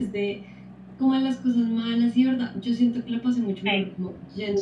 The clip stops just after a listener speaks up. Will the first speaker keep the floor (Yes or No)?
Yes